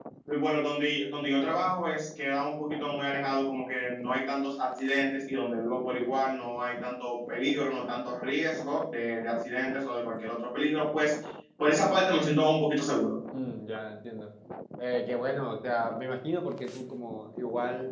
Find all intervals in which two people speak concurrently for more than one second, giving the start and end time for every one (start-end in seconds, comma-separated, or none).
none